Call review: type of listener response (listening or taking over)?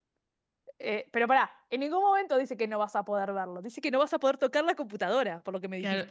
taking over